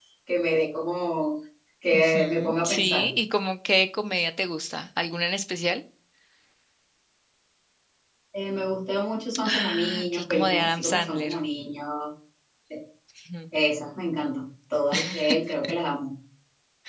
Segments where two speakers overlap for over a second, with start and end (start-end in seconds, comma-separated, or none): 1.9-3.1, 9.4-11.3